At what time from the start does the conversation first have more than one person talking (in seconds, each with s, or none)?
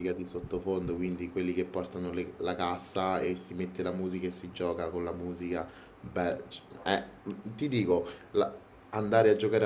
none